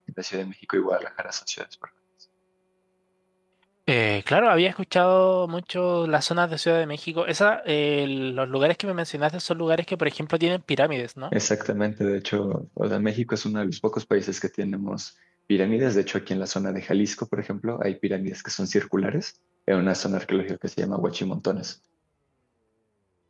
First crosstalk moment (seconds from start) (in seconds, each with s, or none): none